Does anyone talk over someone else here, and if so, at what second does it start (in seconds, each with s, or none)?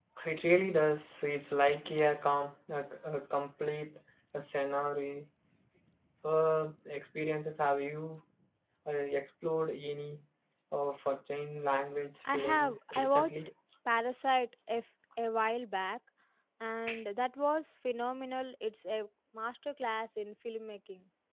12.2 s